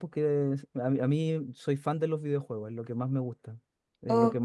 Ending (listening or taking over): listening